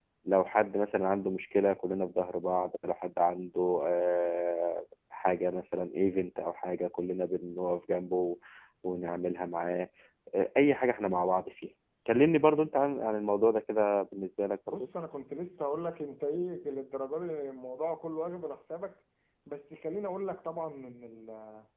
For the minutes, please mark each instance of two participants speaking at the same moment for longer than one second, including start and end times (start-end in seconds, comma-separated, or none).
none